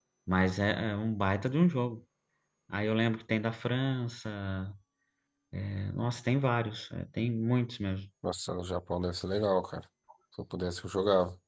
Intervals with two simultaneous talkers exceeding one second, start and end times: none

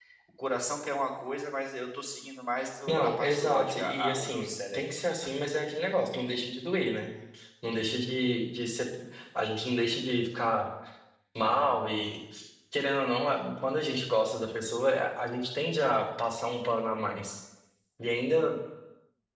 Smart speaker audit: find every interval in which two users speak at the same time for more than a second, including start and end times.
2.9-5.0

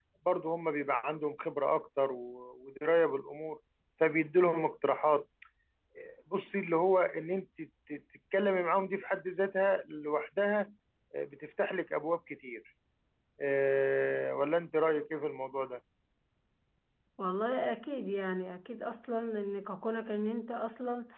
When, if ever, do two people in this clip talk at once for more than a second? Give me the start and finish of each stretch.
none

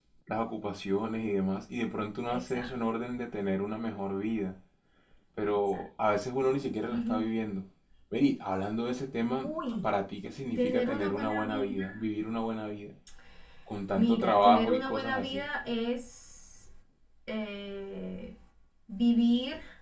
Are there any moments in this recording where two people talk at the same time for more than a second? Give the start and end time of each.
10.6-11.8, 13.9-15.5

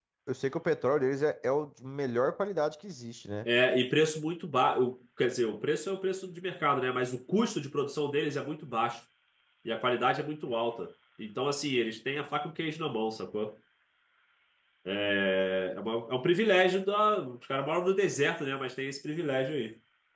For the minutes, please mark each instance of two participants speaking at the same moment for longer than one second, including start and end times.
none

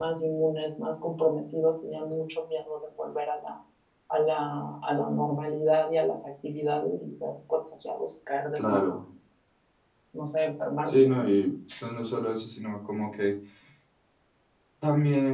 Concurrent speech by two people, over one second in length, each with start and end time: none

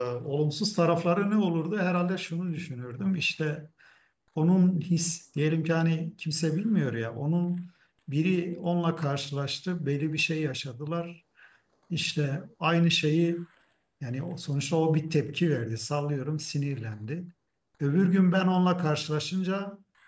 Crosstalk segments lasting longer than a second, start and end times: none

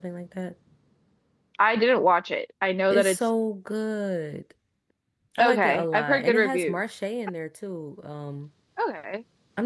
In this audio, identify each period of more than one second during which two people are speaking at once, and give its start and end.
5.4-6.8

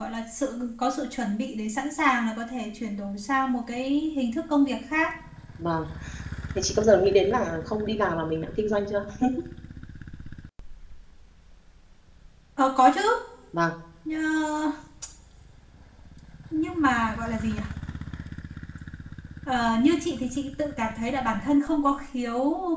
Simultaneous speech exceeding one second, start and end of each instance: none

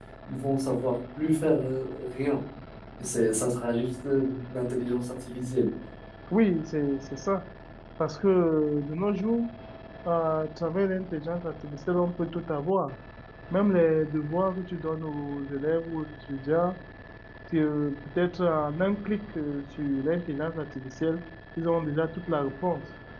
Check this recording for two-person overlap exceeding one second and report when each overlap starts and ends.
none

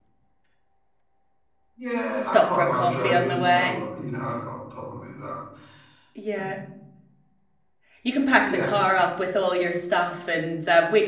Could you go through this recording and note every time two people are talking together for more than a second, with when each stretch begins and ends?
2.2-3.8

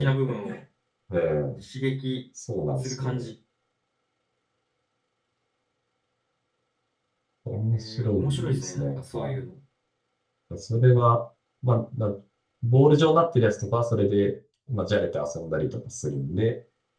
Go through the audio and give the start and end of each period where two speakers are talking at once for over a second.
7.7-9.3

